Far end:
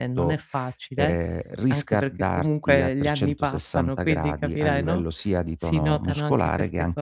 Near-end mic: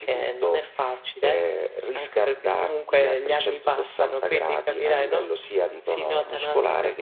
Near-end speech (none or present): none